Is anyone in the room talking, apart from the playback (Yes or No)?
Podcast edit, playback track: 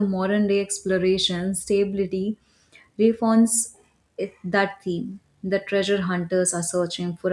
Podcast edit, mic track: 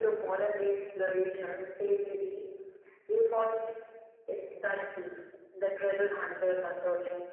No